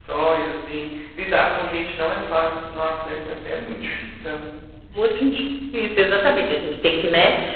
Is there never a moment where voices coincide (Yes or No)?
Yes